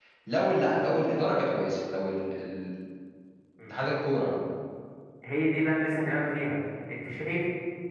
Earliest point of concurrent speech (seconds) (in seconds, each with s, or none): none